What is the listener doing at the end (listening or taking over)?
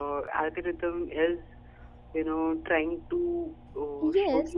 taking over